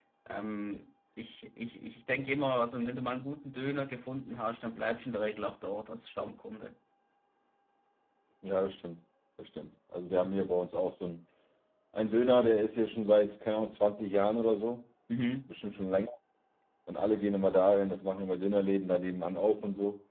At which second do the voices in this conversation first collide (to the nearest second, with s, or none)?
none